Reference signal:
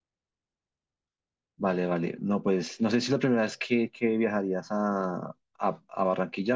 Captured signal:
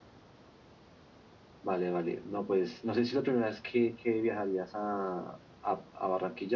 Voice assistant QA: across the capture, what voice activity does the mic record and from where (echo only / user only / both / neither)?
echo only